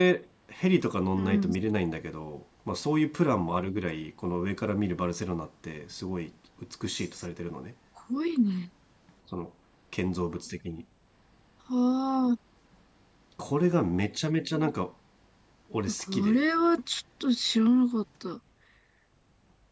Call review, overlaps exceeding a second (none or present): none